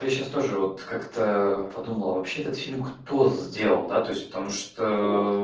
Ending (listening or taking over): listening